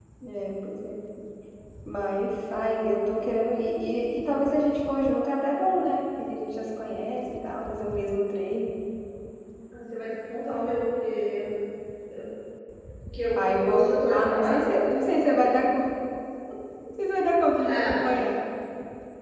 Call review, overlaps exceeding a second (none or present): present